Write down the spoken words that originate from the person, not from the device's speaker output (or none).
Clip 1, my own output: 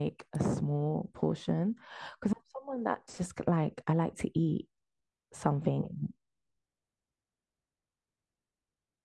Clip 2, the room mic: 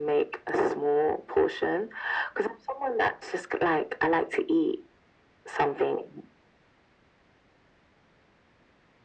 none